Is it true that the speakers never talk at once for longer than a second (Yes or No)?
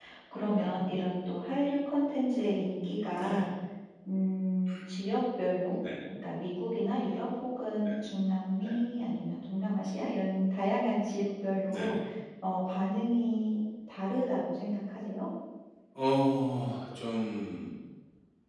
Yes